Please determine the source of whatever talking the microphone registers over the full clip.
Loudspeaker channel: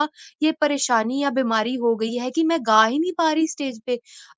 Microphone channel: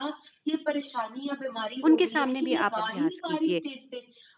both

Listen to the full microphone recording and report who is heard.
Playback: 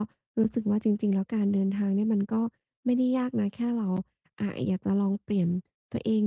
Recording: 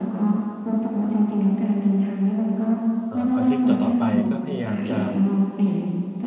both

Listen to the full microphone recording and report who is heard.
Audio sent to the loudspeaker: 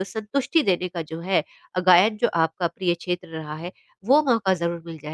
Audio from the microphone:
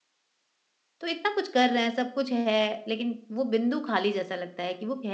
user only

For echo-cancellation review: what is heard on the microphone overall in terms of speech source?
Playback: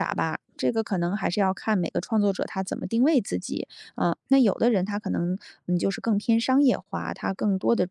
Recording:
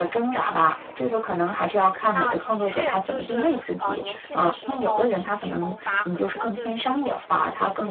both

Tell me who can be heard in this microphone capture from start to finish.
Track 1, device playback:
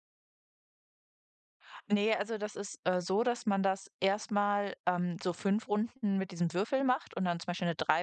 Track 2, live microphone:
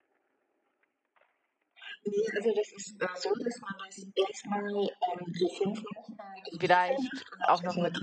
both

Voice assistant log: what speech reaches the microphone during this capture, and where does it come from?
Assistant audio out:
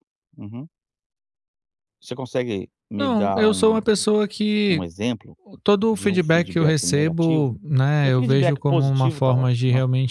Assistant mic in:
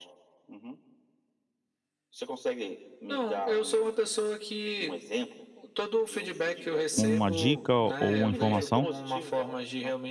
both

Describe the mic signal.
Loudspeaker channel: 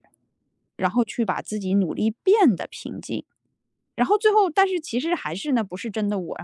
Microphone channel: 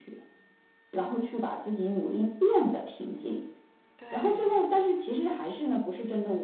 both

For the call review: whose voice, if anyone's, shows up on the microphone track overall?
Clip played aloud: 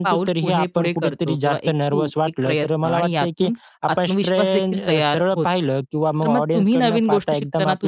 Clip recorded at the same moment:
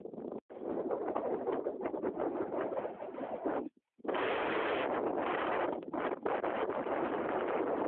neither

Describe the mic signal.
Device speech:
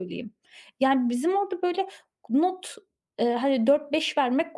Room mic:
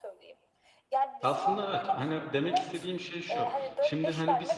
both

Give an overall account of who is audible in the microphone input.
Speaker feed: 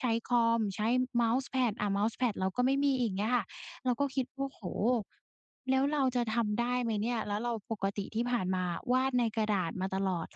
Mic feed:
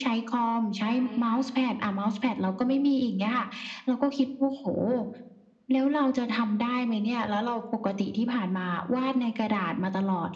both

